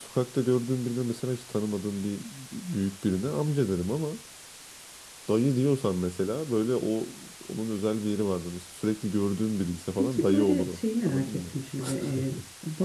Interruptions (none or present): present